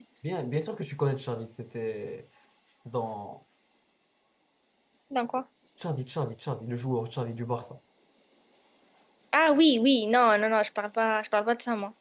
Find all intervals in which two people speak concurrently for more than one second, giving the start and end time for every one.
none

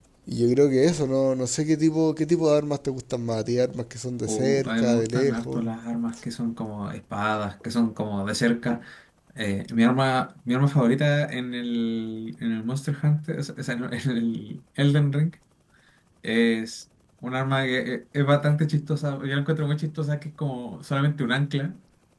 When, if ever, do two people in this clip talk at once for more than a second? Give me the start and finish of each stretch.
4.3-5.7

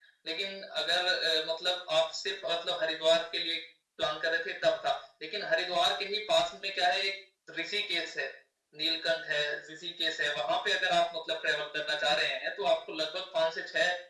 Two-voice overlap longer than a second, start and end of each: none

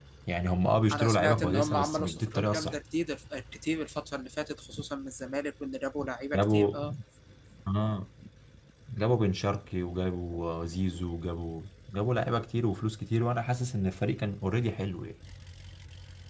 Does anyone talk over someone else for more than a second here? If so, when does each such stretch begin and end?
0.9-2.7

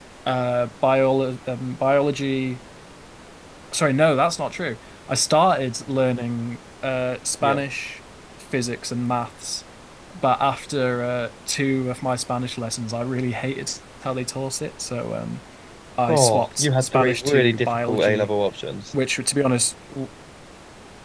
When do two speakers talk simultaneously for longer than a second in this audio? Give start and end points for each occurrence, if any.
16.1-18.3

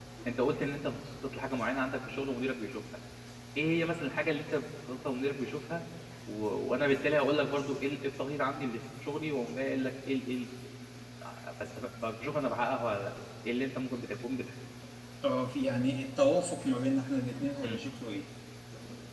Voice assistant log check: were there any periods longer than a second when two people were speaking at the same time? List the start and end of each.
none

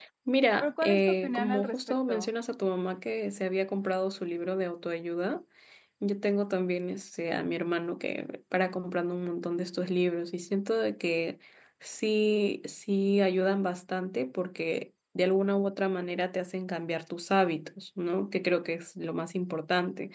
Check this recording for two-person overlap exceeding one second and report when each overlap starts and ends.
0.6-2.3

